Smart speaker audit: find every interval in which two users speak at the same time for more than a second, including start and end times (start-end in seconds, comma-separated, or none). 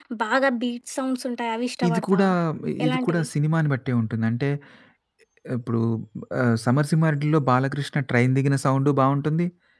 none